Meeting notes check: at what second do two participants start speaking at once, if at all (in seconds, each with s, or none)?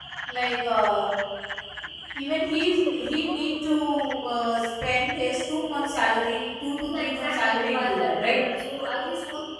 6.9 s